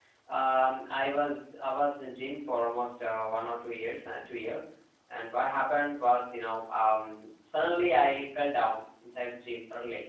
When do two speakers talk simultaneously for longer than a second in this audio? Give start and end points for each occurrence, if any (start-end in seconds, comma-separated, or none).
none